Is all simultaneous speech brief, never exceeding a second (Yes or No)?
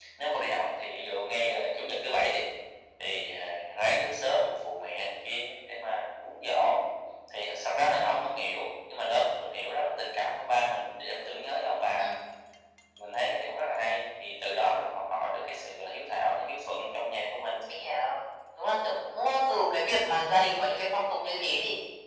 Yes